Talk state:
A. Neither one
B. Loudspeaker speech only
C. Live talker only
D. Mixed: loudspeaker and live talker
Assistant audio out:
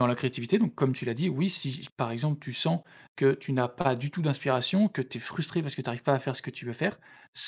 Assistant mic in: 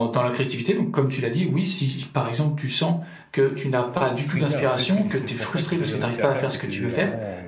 D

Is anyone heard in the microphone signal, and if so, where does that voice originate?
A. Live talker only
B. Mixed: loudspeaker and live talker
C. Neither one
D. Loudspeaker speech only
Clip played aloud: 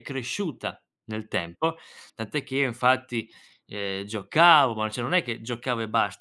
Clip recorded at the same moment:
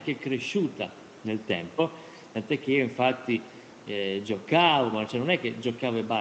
D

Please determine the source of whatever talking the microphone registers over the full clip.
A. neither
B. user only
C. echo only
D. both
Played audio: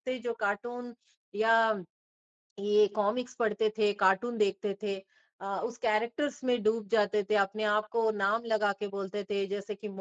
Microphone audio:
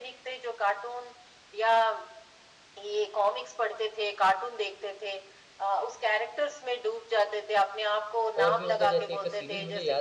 D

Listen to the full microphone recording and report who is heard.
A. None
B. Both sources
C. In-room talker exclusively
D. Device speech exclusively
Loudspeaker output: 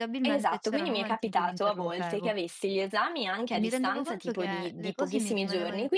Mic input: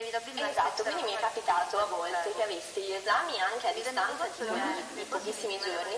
B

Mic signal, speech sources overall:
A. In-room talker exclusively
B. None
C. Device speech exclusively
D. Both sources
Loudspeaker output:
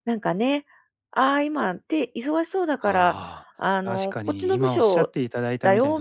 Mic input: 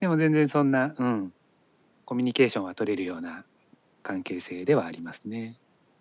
A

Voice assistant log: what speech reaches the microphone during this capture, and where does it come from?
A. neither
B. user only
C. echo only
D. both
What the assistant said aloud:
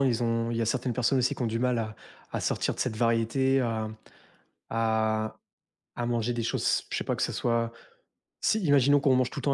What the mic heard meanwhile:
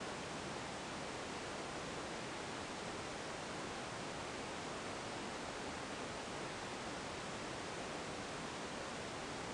A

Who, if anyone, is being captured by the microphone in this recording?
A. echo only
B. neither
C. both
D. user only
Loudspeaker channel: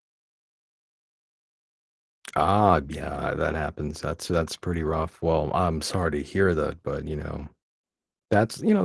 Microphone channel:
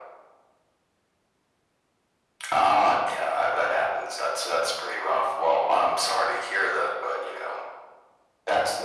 A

